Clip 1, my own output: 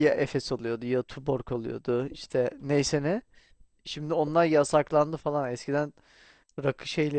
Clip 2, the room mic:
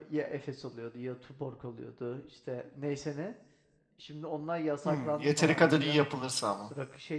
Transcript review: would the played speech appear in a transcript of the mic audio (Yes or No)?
Yes